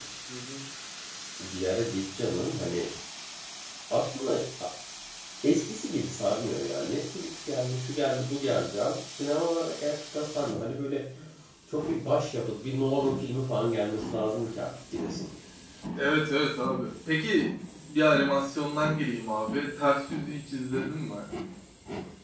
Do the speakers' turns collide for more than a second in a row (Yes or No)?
No